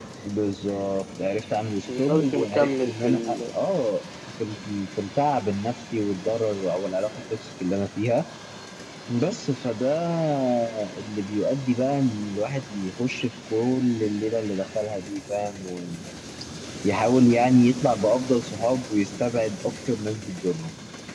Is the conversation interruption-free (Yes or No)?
No